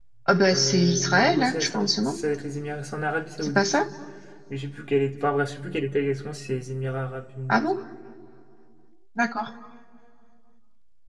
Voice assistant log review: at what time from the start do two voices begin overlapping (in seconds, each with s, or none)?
0.5 s